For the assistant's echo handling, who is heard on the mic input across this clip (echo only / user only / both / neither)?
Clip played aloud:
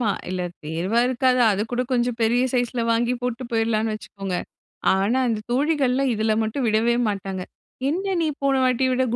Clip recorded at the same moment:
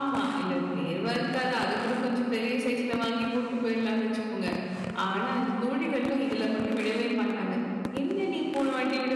echo only